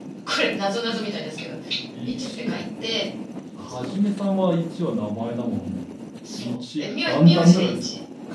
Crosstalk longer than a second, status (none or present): present